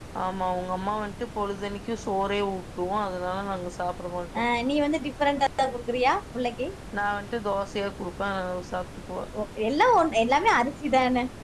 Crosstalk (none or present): none